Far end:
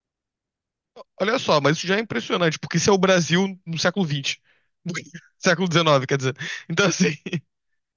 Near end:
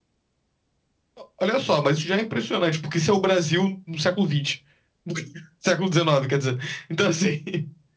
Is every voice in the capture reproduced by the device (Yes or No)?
Yes